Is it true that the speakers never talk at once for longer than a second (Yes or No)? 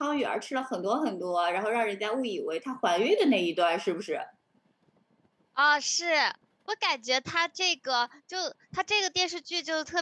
Yes